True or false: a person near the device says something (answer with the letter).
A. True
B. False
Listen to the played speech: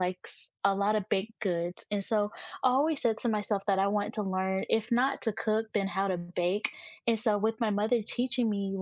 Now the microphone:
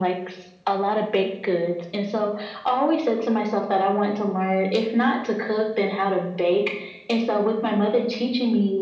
B